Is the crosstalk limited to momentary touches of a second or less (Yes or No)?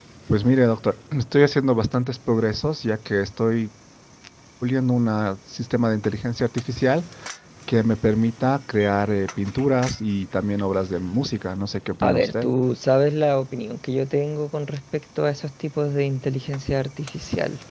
Yes